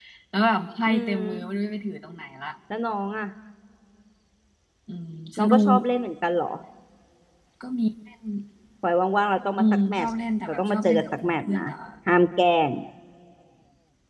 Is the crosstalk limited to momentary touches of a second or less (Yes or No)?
No